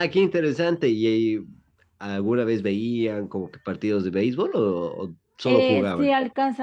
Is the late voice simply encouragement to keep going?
No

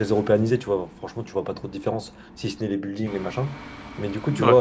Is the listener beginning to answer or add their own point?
No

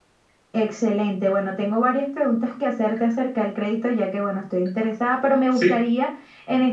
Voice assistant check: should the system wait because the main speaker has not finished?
Yes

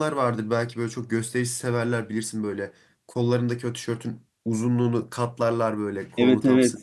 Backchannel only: No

